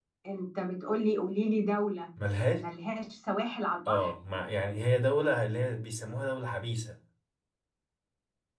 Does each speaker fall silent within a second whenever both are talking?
Yes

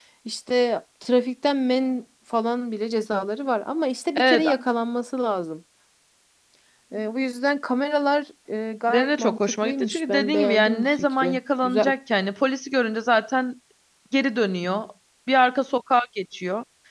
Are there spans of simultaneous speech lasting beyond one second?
Yes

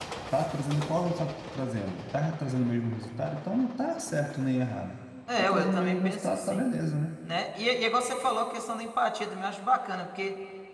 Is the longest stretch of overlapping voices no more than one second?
No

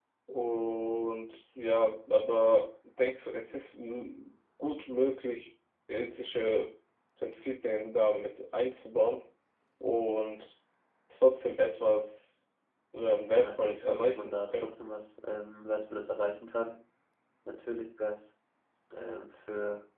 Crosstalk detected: Yes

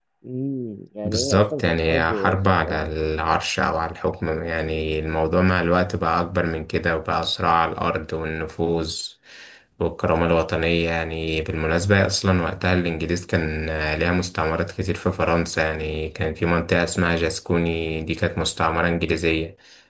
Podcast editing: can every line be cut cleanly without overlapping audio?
No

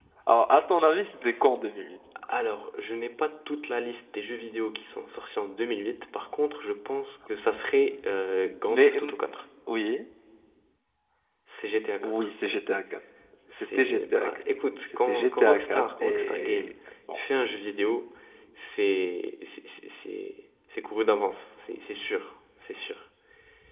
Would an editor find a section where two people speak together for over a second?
Yes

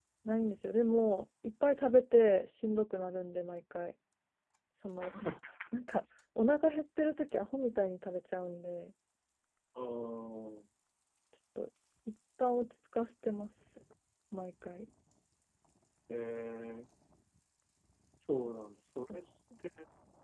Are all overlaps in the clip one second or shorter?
Yes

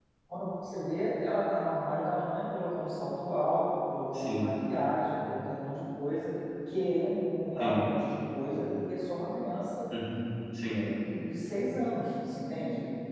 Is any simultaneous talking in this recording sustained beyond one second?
No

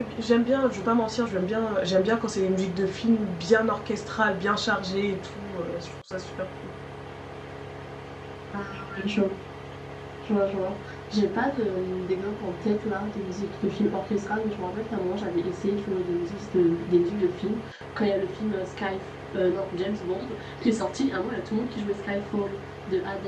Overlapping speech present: No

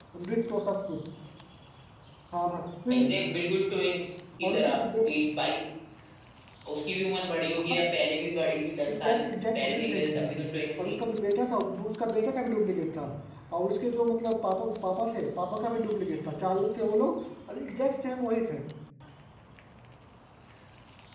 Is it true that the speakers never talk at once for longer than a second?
No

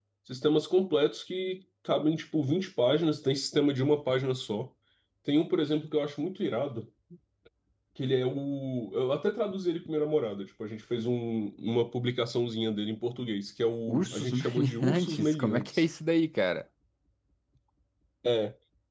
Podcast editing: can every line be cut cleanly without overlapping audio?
No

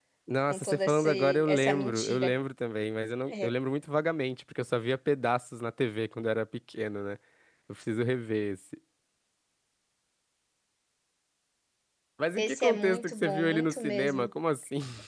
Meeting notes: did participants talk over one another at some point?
Yes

